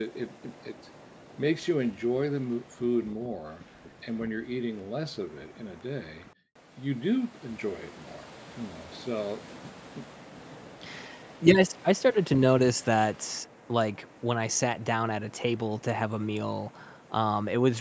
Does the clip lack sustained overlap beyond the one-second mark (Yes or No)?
Yes